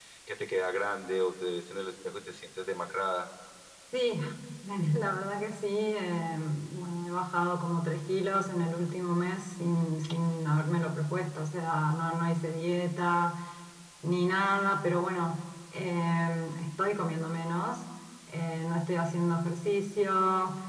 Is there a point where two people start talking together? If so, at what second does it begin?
none

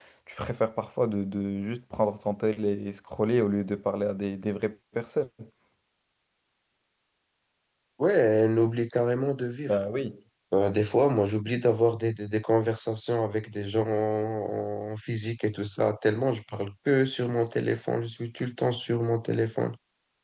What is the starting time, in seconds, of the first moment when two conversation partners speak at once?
none

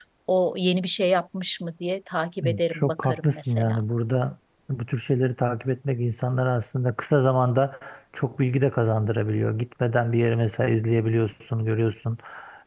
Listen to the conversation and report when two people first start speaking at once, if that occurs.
2.4 s

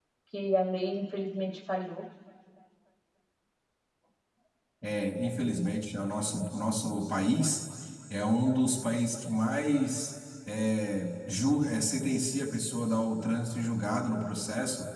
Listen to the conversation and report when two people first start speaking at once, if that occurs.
none

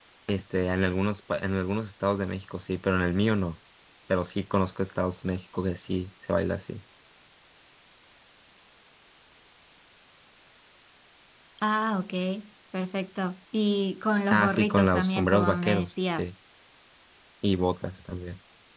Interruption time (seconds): 14.3 s

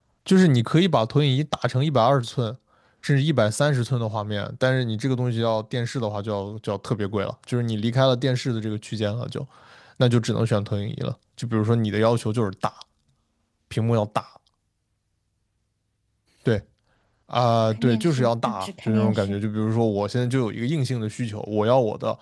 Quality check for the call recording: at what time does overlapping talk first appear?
17.7 s

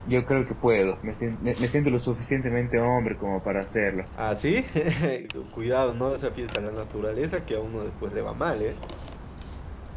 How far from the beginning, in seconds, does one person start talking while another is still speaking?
none

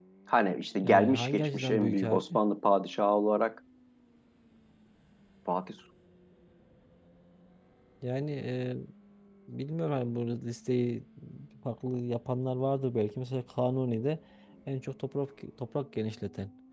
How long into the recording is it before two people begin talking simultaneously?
0.8 s

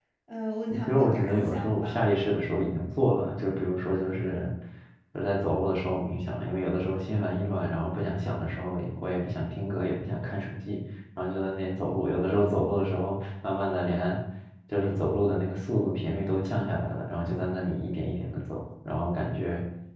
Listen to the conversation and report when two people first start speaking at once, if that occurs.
0.7 s

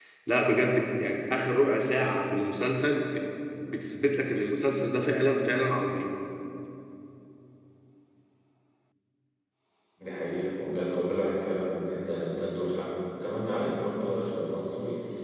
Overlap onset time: none

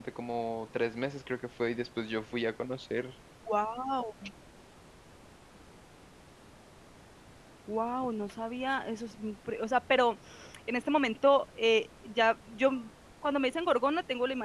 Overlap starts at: none

